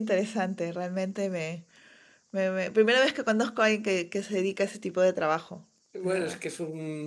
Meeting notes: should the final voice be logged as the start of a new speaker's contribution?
Yes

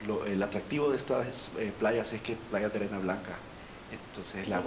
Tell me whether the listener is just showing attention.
No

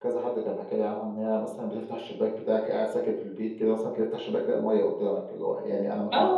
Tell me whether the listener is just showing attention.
No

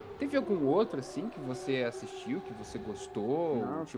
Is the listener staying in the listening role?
No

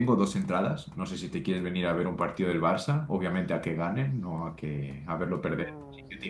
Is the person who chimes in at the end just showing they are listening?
No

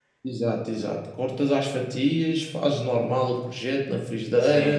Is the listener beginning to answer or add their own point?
No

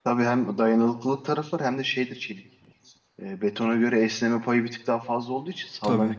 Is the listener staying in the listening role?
Yes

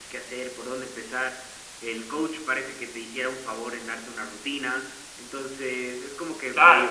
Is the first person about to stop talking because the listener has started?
Yes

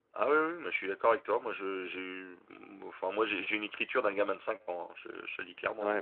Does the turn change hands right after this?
Yes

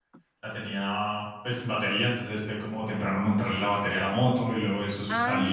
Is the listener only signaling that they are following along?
No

